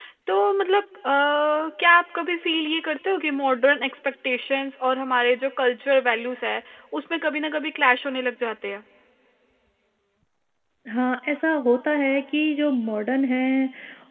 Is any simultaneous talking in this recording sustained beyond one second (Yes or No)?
No